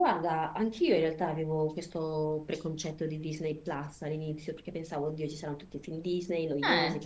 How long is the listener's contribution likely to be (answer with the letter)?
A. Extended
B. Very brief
B